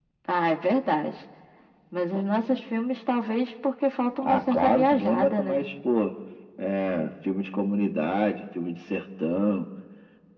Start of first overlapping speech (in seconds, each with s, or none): 4.2 s